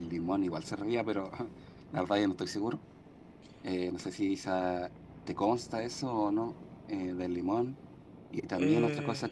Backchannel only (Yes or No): Yes